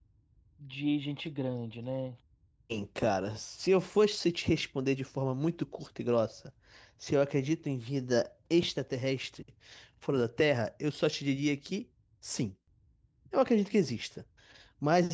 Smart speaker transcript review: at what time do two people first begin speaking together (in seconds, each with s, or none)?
none